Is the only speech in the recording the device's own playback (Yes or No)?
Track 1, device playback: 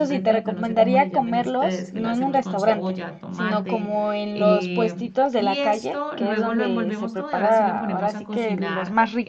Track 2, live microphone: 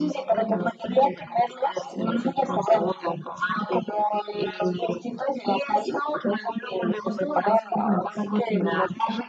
Yes